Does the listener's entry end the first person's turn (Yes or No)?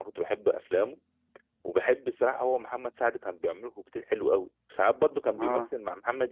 No